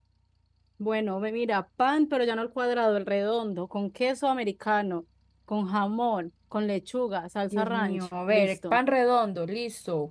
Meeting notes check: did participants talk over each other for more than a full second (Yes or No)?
Yes